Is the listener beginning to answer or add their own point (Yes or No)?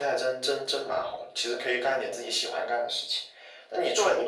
No